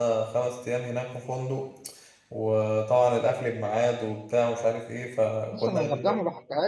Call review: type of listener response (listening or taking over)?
taking over